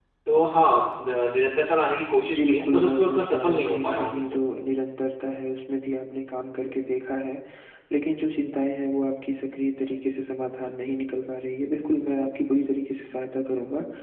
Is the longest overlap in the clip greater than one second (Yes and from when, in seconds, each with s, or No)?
Yes, from 2.3 s